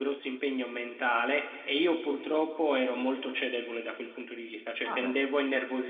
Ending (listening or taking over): listening